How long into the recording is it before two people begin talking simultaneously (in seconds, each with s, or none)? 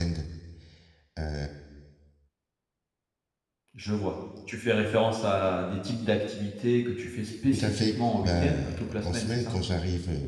7.5 s